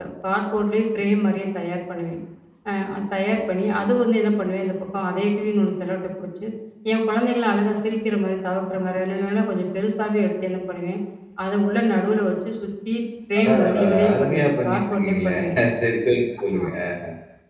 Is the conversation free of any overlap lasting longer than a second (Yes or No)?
No